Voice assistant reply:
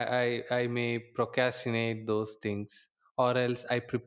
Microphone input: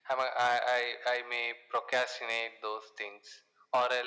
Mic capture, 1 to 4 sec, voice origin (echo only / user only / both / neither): echo only